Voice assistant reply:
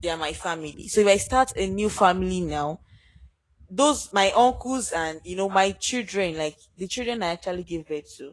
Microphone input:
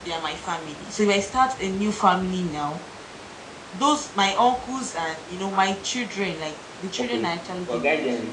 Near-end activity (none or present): present